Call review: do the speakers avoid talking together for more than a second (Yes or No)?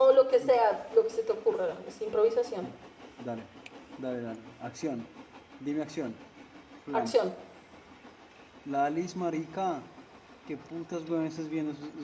Yes